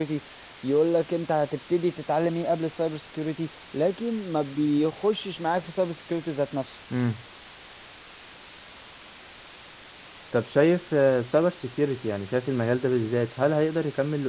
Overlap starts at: none

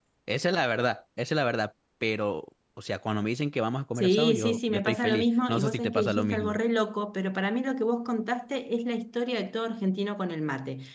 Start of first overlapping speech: 4.0 s

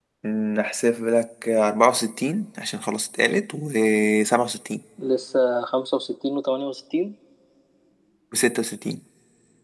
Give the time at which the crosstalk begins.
none

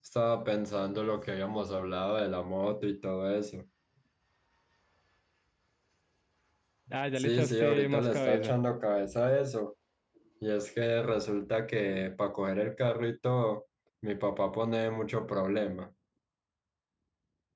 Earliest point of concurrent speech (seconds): 7.2 s

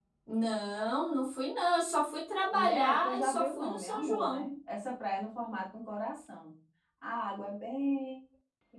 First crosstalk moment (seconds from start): 2.5 s

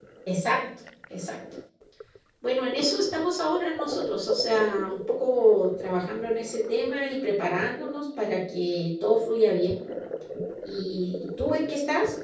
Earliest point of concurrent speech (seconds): none

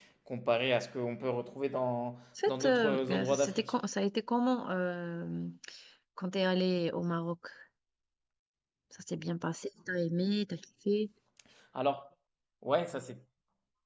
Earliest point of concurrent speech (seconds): 2.4 s

